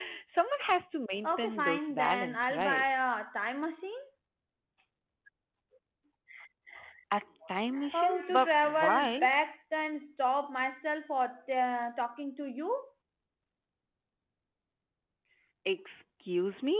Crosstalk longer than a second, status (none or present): present